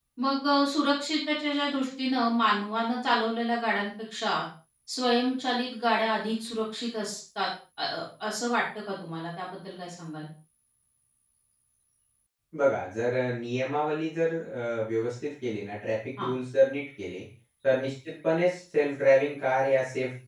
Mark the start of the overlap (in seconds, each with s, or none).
none